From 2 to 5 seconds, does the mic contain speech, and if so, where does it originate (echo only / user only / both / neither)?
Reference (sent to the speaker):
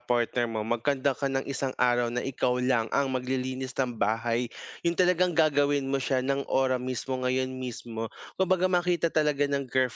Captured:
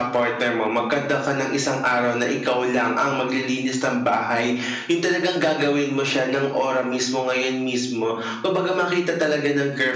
echo only